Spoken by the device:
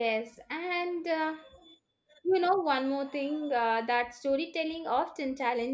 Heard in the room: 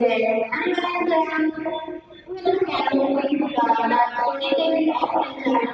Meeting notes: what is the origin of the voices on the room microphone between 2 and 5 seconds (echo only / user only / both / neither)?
echo only